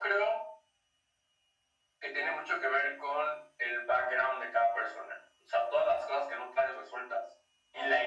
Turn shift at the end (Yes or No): No